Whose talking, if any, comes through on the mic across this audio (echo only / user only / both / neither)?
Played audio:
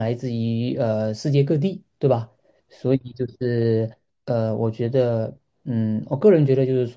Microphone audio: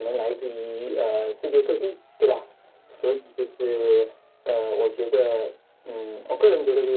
echo only